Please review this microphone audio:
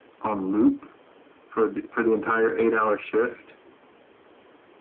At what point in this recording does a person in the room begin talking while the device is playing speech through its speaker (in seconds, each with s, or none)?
none